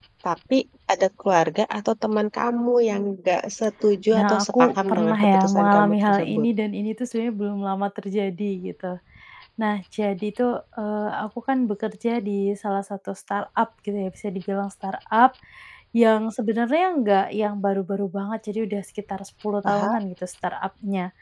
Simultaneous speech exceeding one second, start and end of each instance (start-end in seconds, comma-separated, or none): 4.2-6.5